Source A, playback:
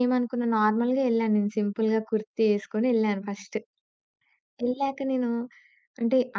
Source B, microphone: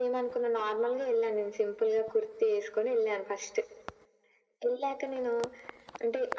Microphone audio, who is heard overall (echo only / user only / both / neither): echo only